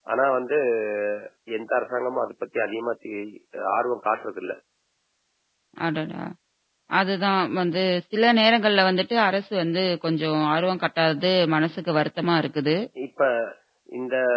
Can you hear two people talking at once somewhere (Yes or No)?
No